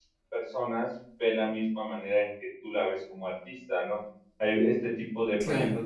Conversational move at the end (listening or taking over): listening